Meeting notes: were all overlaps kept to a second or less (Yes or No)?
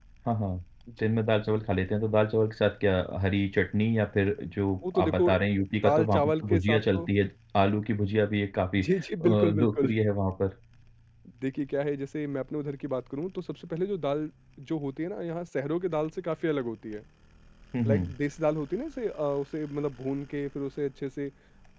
No